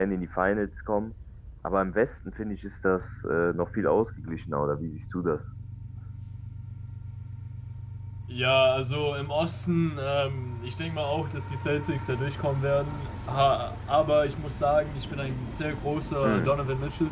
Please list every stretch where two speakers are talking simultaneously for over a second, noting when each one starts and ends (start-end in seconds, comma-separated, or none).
none